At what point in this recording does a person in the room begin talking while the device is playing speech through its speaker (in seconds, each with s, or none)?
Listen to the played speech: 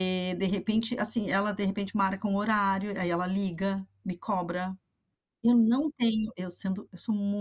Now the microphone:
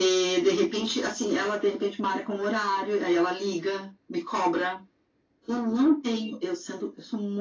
none